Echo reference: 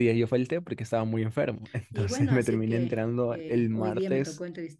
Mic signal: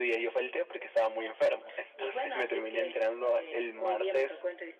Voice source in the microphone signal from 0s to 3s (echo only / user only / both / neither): echo only